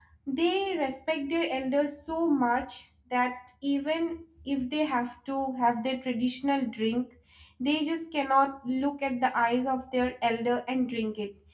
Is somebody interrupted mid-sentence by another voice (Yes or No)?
No